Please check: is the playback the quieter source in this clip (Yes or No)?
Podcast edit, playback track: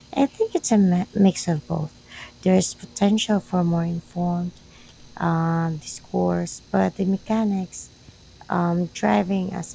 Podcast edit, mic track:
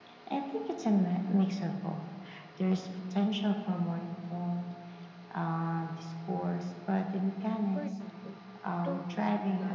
No